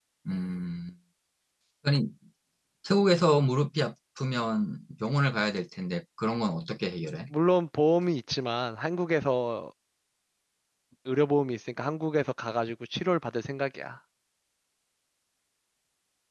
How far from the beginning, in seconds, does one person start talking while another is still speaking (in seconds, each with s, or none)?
none